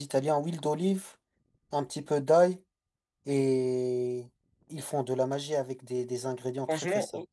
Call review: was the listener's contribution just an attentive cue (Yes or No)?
No